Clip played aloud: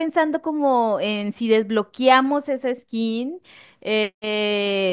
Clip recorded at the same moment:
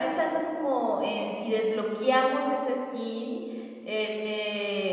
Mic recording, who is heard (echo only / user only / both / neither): echo only